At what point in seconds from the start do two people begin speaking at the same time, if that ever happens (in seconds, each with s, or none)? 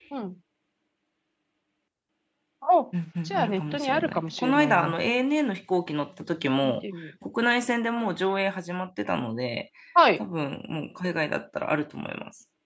3.3 s